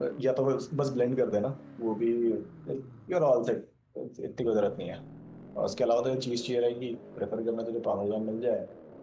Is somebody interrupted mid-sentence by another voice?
No

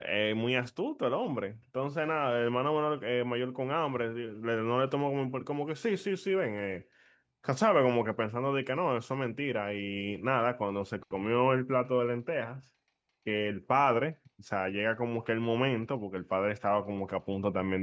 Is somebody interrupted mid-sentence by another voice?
No

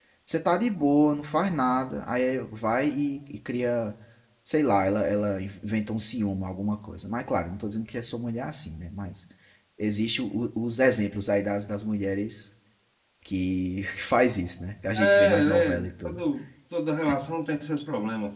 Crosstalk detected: Yes, from 14.9 s

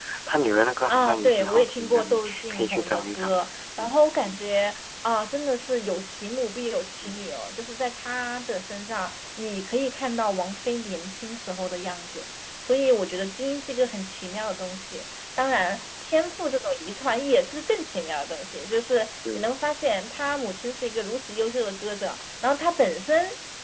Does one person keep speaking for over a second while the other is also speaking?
Yes, from 0.9 s

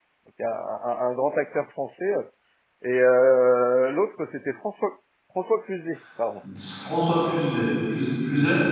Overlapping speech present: No

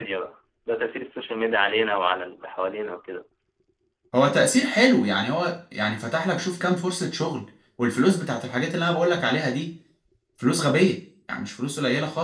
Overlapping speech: No

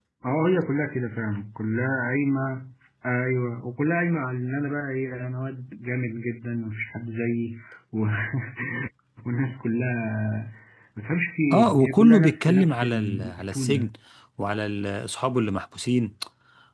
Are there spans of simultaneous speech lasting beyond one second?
Yes, from 11.5 s

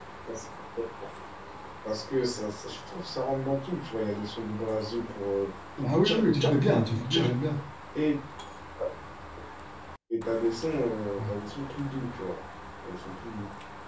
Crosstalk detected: Yes, from 5.8 s

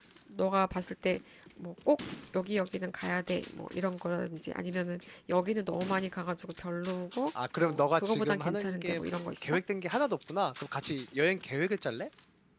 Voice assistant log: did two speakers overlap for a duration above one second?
Yes, from 7.6 s

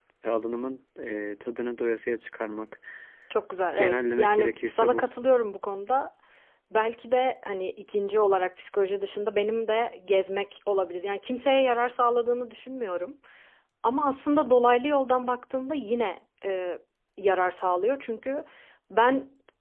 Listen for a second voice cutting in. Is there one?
Yes, from 3.8 s

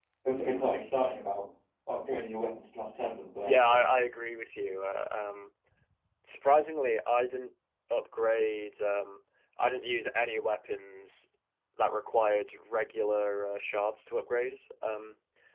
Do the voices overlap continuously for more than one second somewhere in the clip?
No

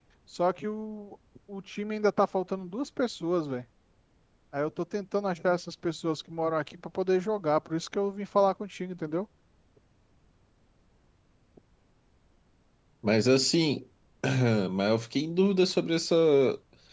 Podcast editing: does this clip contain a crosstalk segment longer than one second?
No

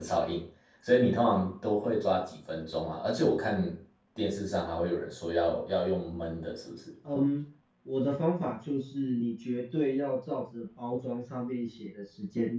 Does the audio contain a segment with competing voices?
No

